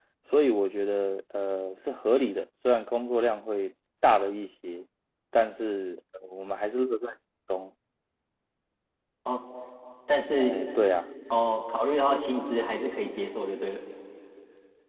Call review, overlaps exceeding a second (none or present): none